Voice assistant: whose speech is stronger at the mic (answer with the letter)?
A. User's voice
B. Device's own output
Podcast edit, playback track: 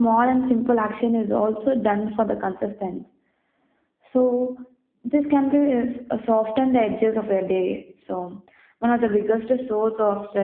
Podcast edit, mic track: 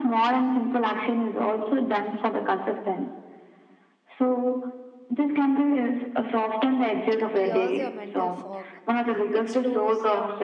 B